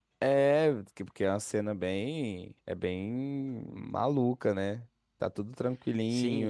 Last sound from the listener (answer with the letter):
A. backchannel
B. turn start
B